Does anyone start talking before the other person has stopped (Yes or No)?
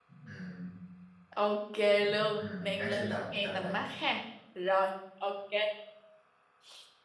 Yes